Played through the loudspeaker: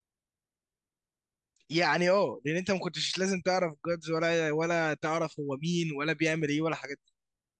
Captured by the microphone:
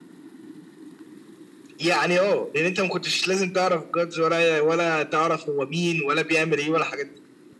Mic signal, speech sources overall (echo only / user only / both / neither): echo only